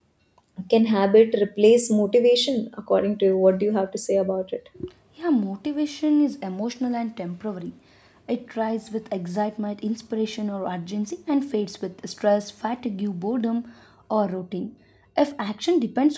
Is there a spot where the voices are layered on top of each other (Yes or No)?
No